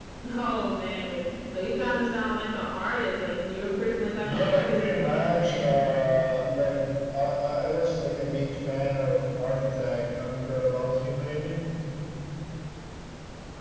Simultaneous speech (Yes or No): Yes